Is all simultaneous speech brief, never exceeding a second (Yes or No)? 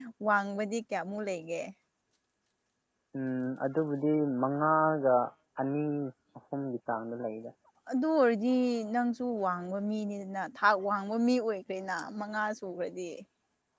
Yes